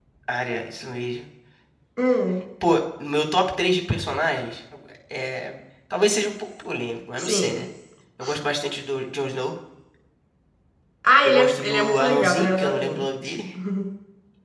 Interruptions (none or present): present